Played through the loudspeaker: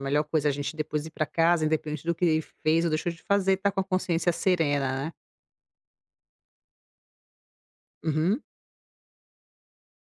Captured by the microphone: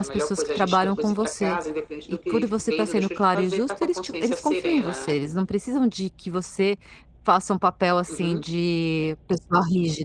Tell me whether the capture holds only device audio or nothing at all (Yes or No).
No